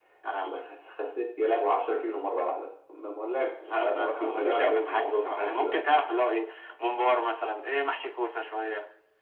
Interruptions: present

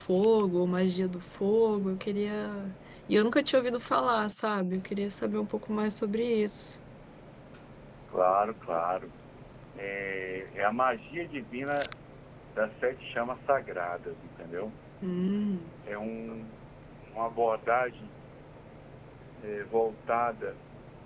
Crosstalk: none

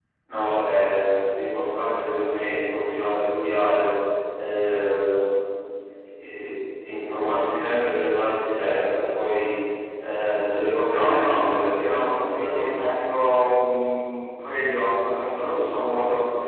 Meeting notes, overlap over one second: present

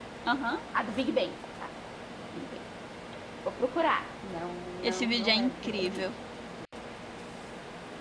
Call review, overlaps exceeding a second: present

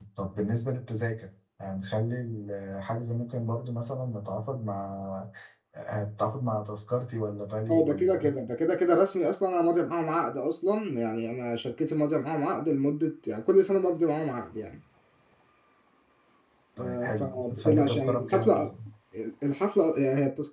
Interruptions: present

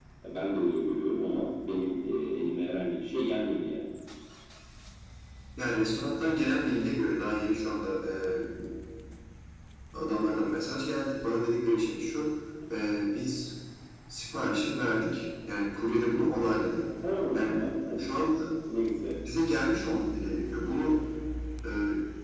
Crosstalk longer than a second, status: none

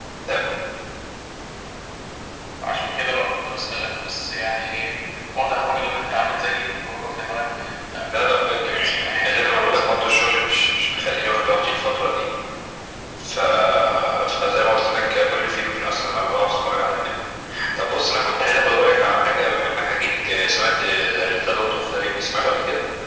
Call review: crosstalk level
present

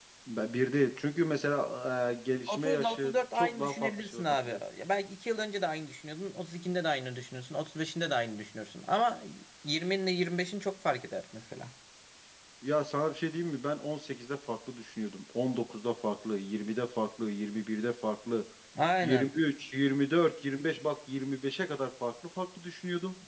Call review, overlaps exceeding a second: present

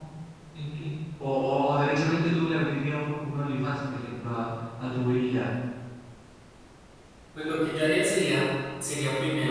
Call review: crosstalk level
none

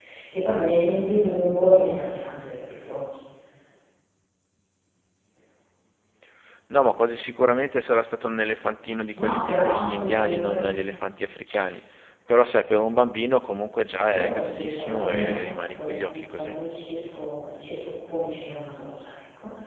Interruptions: present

